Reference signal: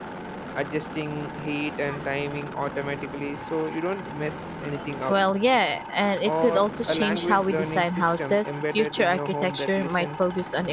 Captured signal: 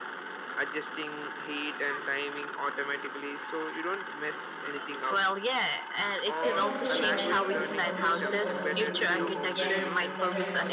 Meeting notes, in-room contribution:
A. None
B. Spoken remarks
B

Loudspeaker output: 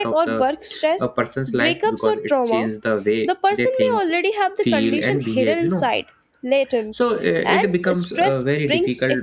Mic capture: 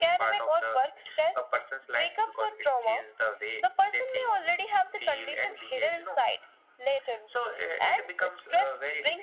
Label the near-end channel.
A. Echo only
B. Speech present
A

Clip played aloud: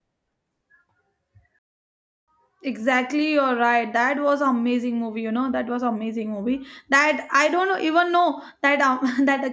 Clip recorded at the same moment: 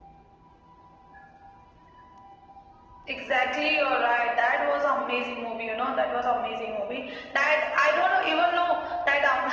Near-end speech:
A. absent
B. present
A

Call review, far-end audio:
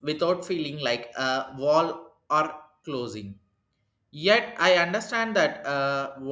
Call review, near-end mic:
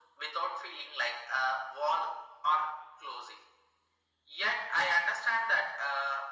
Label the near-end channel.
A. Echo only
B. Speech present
A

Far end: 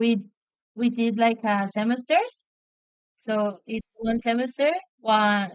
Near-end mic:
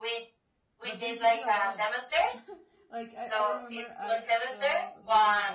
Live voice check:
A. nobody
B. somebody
B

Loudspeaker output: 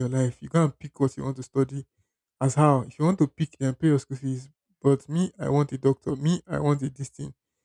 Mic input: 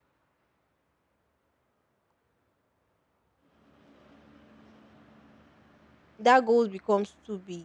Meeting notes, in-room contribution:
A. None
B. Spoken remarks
B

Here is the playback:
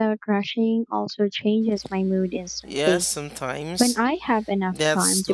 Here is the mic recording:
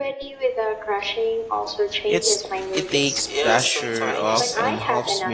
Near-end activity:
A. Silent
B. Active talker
B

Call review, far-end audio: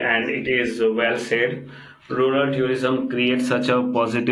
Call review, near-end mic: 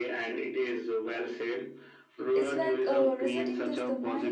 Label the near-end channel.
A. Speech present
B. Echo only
A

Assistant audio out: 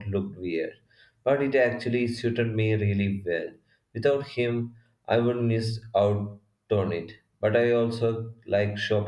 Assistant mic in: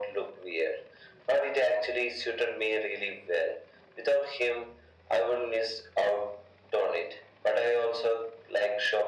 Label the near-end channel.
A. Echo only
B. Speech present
A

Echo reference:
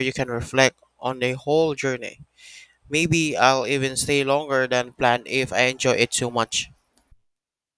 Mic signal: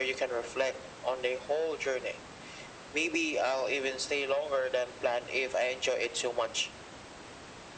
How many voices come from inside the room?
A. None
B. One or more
A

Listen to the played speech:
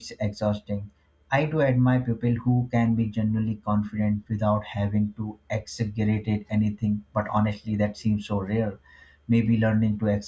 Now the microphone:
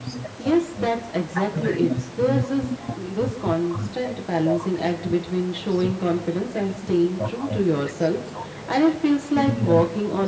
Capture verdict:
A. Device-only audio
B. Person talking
B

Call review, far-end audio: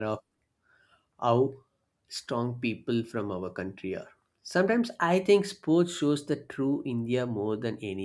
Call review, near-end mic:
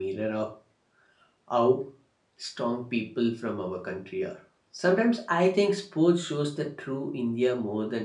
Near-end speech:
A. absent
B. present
A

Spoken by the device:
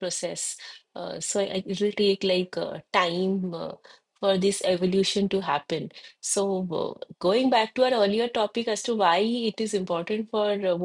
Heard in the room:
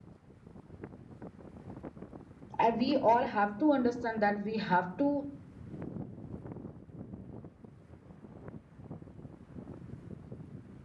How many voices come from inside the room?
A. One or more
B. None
A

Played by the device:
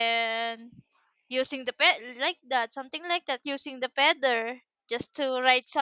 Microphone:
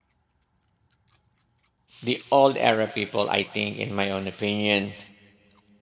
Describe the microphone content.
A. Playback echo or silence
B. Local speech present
B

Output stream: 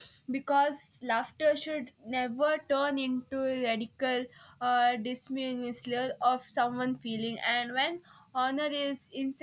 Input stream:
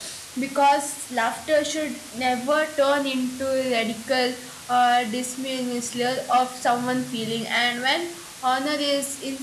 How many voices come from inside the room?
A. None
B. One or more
A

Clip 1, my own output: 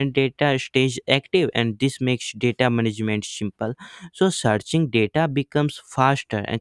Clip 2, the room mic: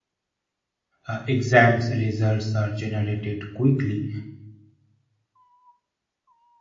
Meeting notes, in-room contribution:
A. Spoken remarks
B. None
A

